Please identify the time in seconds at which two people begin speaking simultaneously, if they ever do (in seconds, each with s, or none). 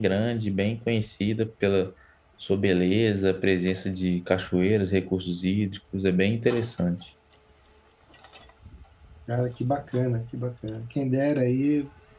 none